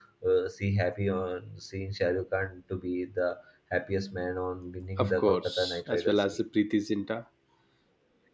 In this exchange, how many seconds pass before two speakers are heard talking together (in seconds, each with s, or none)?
5.0 s